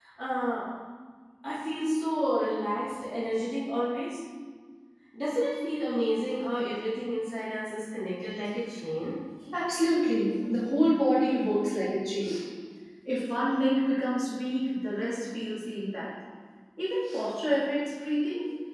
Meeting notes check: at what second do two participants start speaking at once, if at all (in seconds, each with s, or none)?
none